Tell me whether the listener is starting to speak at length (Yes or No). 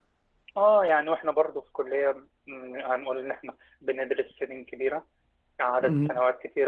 No